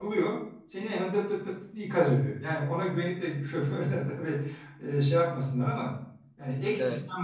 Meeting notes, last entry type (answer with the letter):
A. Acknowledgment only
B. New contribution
A